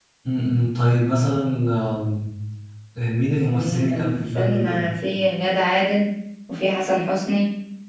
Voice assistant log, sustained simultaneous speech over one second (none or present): present